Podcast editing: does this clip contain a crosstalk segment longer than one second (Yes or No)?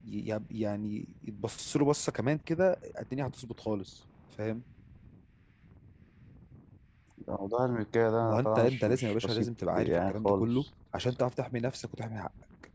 Yes